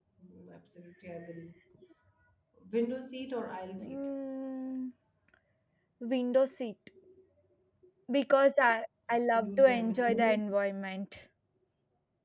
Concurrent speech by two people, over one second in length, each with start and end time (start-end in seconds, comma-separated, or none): 9.1-10.4